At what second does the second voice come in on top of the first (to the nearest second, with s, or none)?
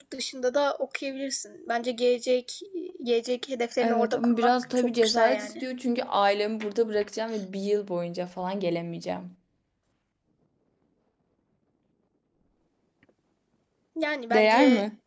4 s